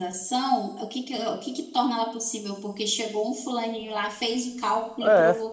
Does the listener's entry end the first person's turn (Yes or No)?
No